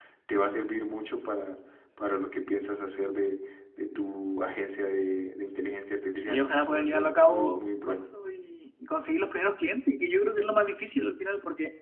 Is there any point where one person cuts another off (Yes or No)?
Yes